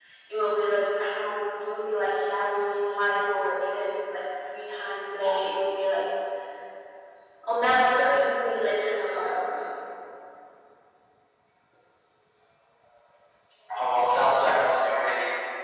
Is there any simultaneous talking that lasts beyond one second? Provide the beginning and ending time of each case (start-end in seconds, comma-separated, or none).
none